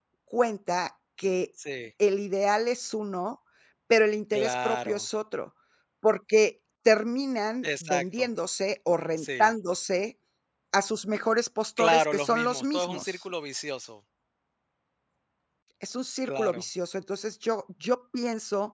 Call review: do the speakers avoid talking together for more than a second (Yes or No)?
No